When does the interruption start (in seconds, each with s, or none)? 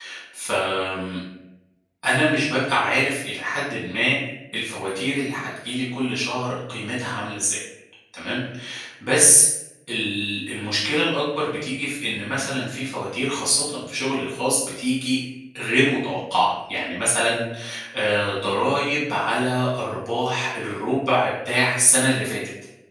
none